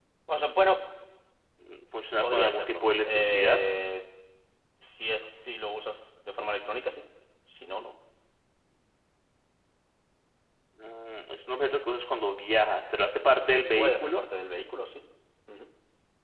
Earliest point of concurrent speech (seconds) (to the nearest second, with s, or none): 2 s